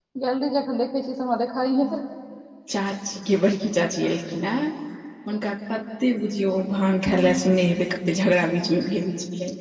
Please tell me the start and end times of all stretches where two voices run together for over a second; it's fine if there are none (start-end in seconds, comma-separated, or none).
none